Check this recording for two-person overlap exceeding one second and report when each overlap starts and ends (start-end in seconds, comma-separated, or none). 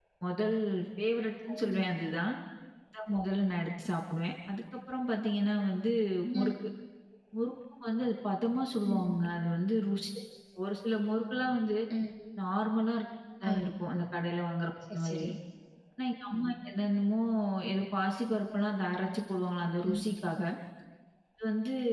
none